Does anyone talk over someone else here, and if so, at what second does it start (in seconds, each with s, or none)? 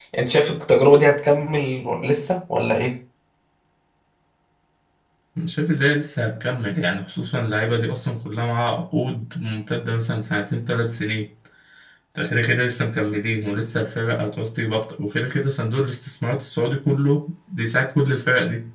none